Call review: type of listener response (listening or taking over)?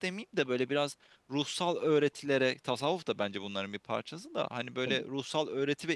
listening